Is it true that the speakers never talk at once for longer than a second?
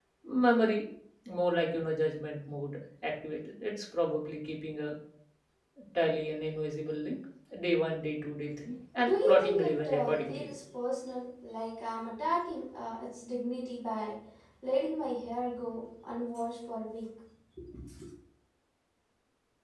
No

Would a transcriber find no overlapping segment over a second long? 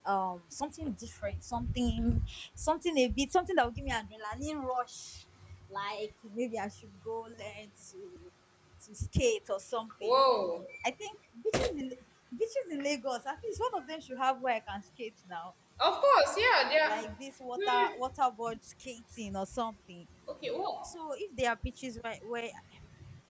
Yes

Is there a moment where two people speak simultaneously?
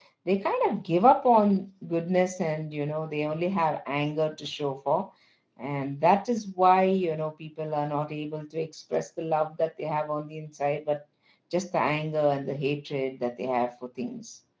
No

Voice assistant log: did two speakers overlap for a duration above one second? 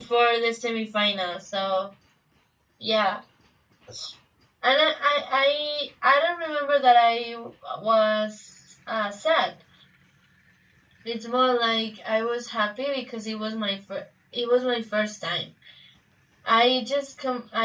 No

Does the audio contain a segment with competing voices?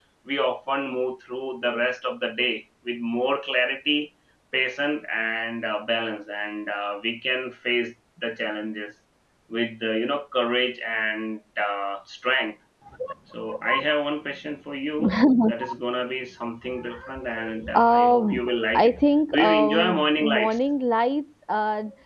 Yes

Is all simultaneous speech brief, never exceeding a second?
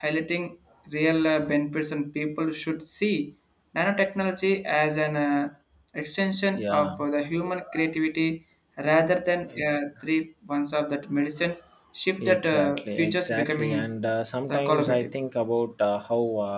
No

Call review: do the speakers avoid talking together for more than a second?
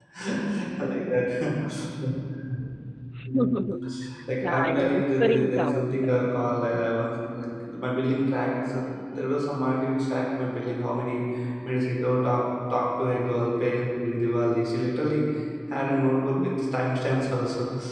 No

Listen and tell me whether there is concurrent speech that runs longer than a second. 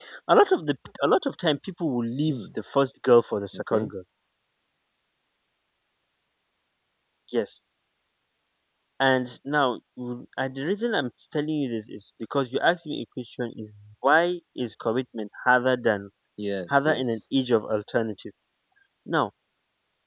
No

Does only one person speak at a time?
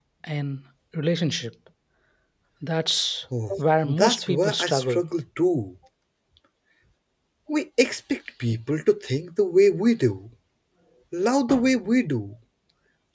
No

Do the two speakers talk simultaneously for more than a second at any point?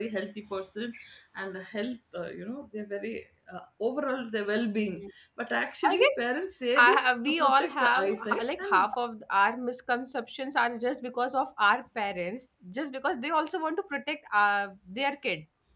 Yes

